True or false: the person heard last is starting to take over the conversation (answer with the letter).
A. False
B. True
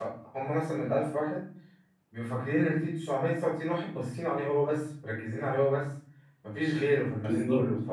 A